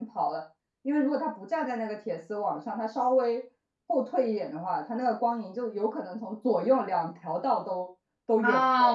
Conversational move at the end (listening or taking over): taking over